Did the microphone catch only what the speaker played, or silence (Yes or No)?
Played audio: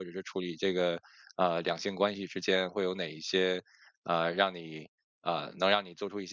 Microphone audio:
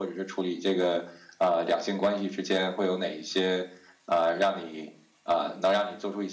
Yes